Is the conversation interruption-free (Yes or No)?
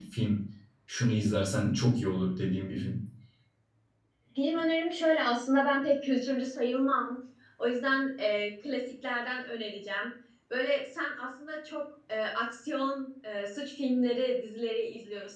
Yes